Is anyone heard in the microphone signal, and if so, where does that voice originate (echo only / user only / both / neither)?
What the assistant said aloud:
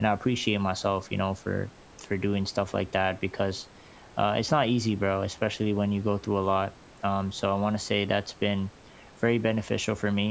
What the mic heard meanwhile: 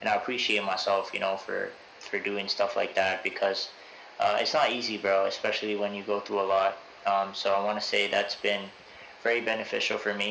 echo only